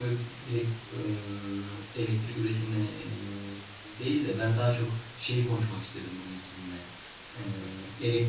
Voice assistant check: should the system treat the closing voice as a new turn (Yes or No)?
No